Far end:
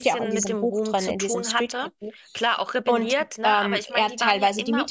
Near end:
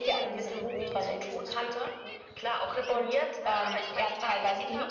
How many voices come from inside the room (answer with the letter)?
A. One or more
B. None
B